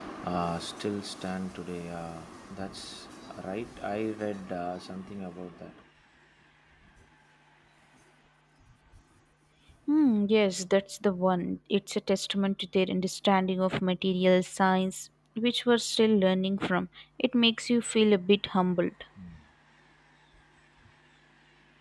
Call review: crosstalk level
none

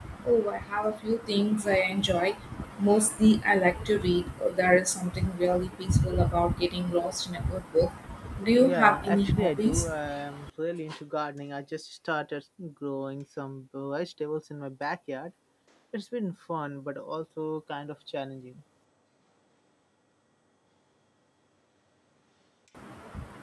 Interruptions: present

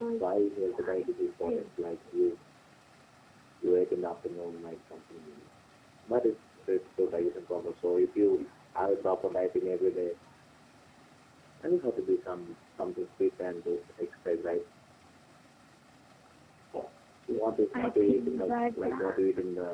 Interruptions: present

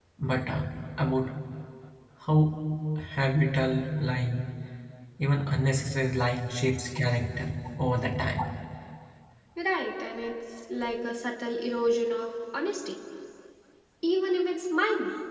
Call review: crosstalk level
none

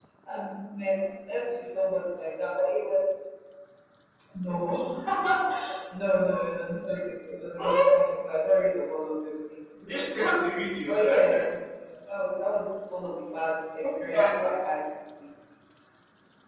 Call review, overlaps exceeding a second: none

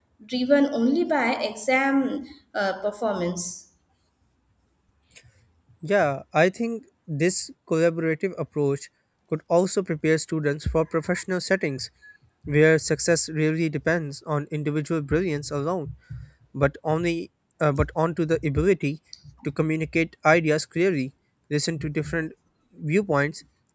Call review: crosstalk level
none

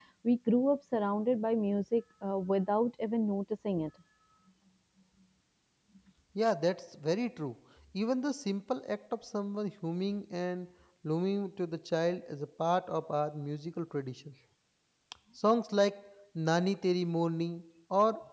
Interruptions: none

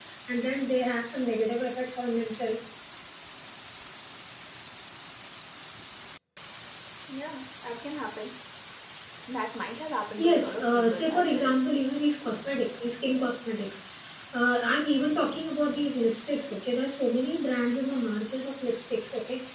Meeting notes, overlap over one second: present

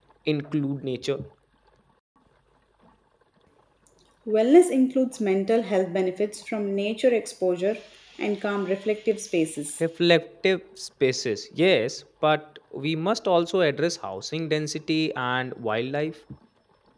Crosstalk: none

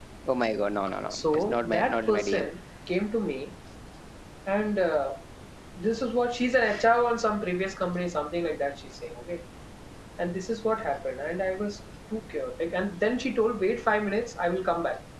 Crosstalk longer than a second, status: present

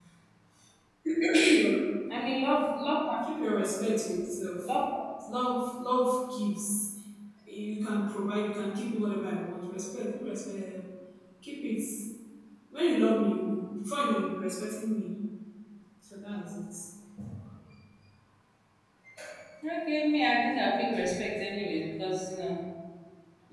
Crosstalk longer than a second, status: none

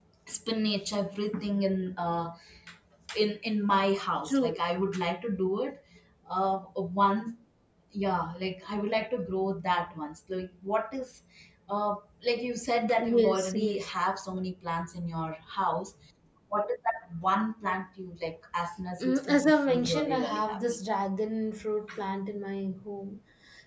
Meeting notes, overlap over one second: present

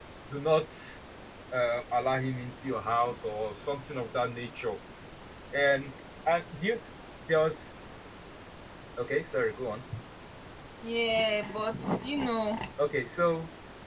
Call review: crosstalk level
none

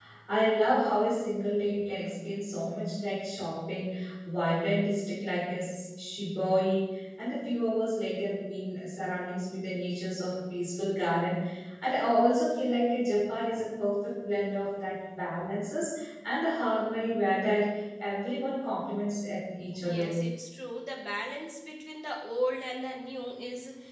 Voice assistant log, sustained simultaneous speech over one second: none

